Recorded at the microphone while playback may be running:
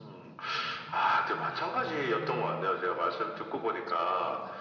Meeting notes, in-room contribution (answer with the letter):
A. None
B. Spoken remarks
A